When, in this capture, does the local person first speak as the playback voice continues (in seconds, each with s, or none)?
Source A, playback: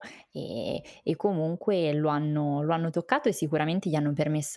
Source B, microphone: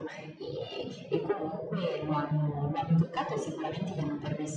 none